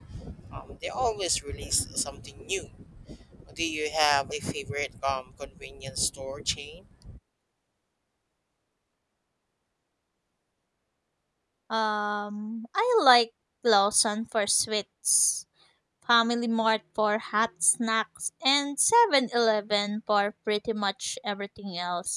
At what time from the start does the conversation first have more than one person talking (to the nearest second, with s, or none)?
none